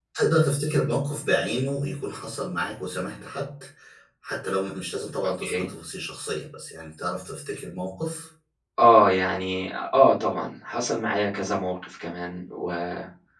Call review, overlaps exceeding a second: none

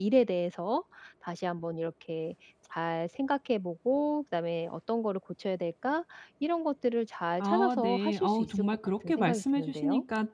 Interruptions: present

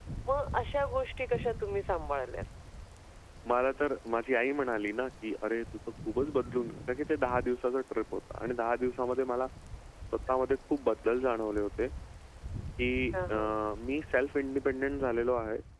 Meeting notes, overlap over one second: none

